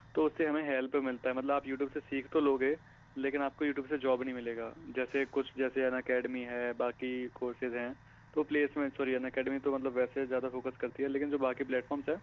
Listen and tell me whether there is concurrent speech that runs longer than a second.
No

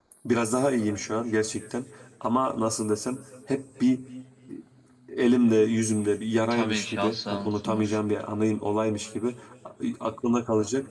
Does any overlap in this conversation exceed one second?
Yes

